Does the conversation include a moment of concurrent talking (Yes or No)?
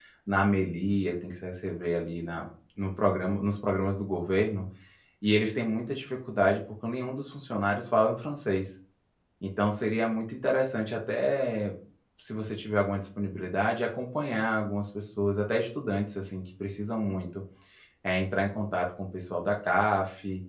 No